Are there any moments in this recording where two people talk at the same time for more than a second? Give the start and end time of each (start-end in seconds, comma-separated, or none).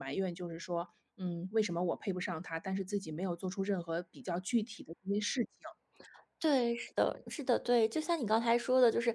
none